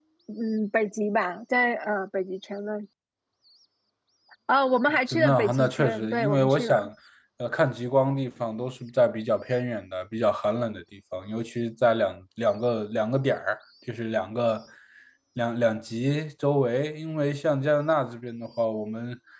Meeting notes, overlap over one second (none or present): present